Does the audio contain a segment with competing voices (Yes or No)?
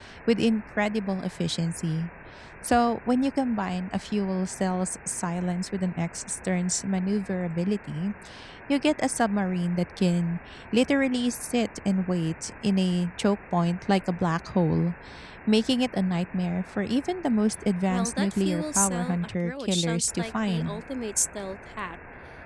Yes